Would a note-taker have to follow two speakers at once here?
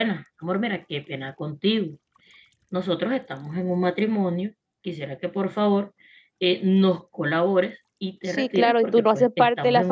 Yes, from 8.3 s

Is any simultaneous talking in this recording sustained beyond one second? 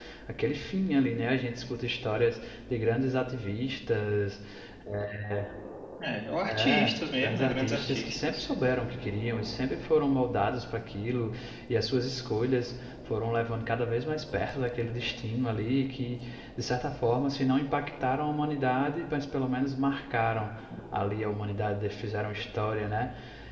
Yes, from 6.5 s

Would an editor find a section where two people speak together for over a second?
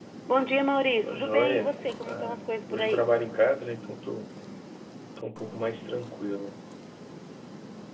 Yes, from 1.0 s

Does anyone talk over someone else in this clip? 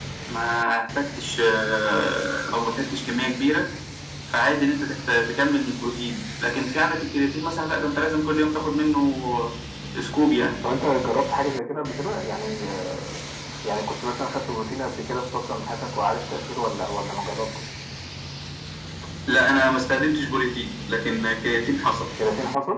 No

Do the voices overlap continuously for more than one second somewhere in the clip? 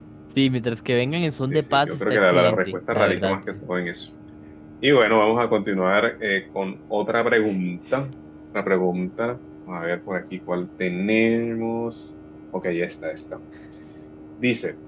Yes, from 1.5 s

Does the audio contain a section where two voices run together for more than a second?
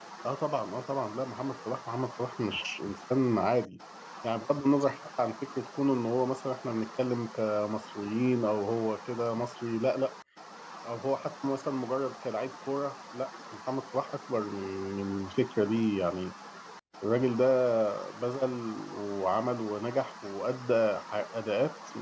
No

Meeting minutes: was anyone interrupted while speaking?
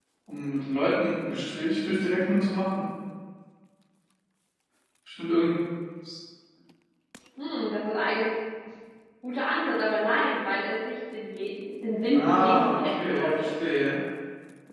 Yes, from 12.1 s

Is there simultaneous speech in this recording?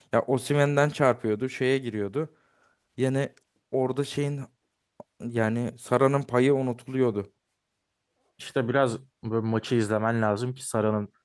No

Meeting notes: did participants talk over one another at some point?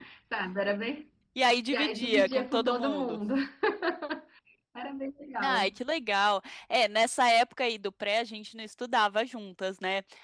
Yes, from 1.7 s

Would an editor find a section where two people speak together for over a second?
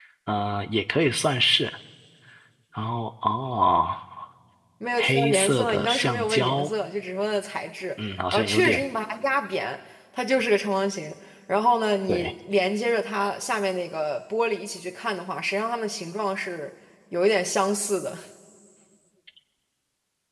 Yes, from 5.0 s

